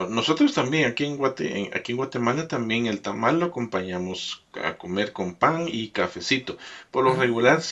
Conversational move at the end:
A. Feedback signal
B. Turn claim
A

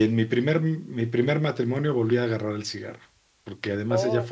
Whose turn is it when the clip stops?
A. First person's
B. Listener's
A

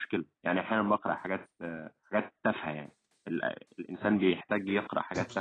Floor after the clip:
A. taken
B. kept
A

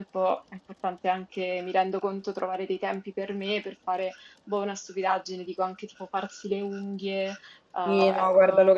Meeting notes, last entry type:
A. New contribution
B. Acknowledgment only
A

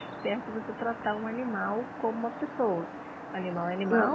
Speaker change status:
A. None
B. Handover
A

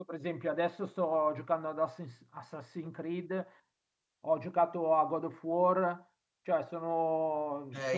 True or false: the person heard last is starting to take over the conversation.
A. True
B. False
A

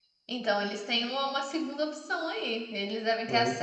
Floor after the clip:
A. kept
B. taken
A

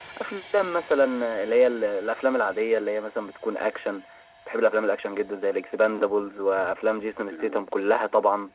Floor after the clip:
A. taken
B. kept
B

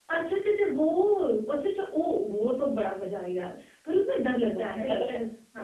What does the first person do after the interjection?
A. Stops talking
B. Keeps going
A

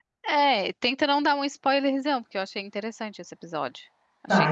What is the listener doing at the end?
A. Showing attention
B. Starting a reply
B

